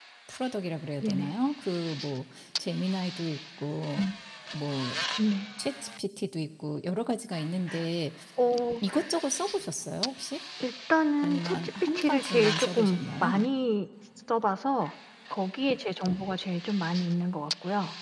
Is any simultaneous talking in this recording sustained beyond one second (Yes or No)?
Yes